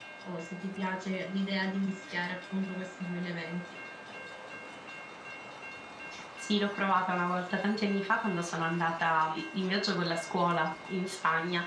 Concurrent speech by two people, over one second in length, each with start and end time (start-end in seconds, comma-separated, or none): none